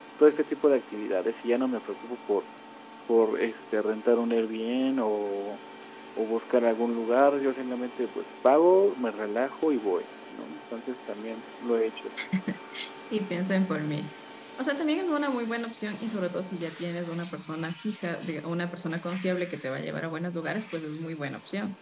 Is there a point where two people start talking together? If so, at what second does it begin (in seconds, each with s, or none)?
none